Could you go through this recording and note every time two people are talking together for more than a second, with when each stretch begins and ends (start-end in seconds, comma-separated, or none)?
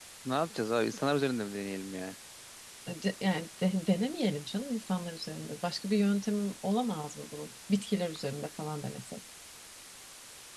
none